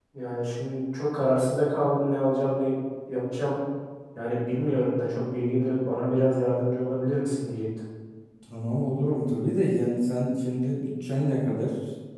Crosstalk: none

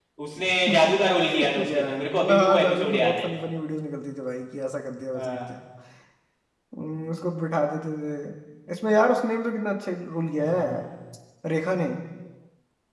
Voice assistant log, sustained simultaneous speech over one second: present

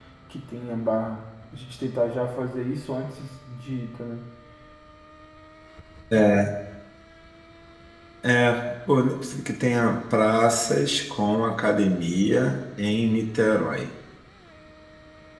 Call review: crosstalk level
none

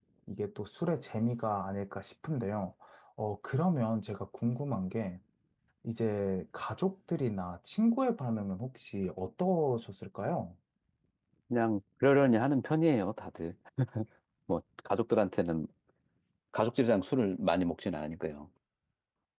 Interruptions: none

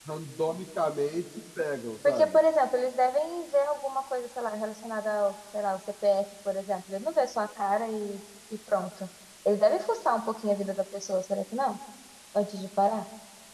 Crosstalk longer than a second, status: none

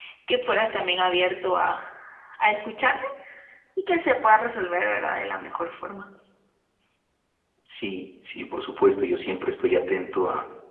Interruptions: none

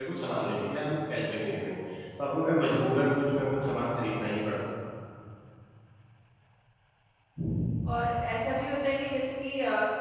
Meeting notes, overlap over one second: none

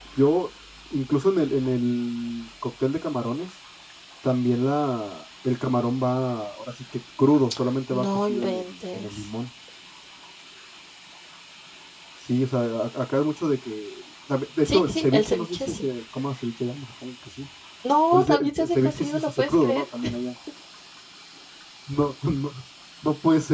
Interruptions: present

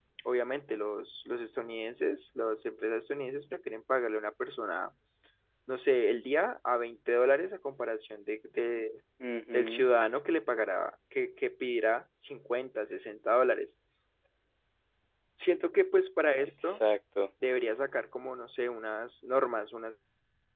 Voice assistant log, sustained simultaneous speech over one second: none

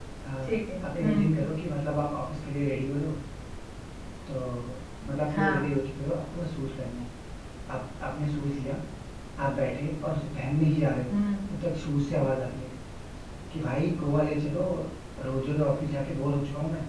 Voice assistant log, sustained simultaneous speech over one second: none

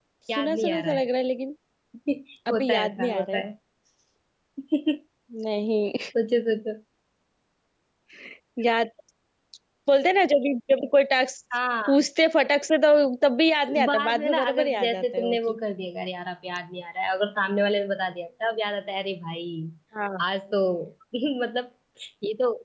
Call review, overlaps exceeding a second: present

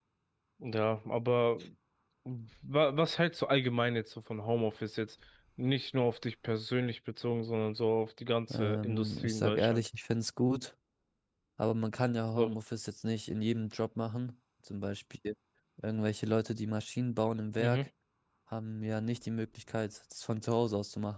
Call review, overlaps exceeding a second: present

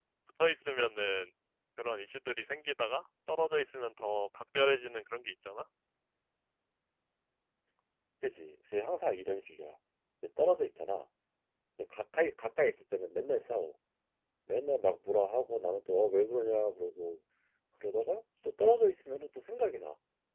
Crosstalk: none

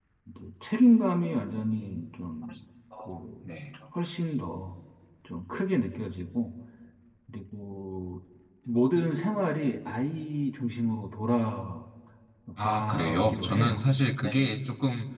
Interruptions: present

